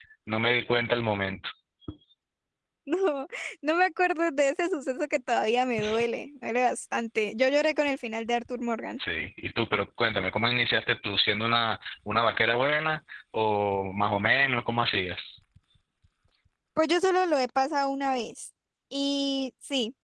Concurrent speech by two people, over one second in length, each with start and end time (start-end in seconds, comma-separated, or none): none